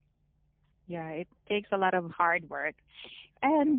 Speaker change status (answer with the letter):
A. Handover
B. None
B